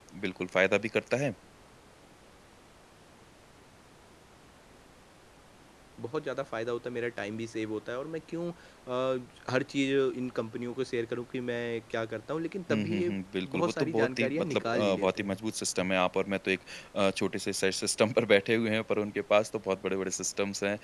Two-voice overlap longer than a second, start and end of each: 13.6-15.4

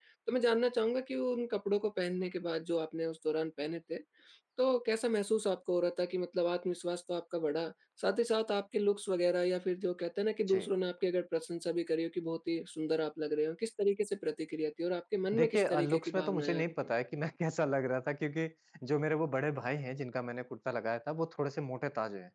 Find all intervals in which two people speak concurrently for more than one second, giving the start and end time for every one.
15.3-16.7

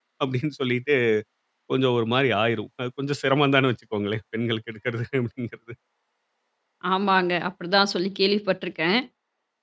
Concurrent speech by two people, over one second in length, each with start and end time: none

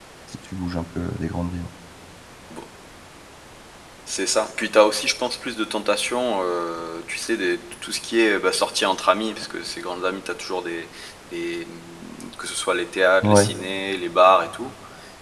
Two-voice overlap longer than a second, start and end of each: none

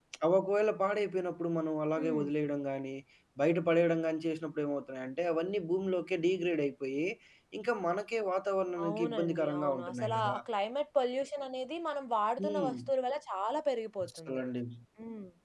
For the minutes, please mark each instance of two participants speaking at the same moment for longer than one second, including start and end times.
8.8-10.4

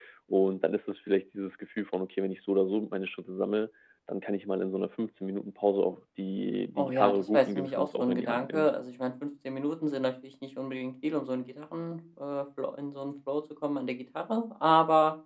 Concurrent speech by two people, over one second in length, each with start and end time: 6.8-8.7

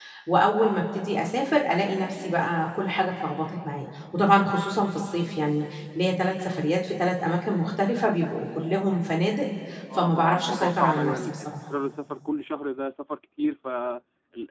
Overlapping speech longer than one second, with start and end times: 10.0-11.5

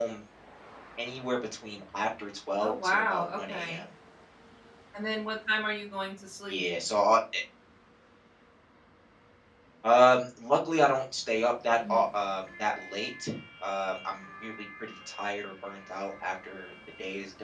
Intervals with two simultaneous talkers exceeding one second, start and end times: 2.6-3.8

